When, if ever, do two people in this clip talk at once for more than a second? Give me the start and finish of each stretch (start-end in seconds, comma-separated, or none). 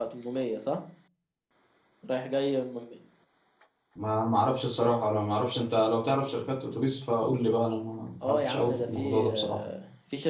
8.2-9.6